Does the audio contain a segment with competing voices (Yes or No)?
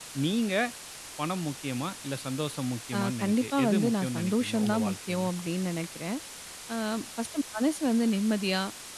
Yes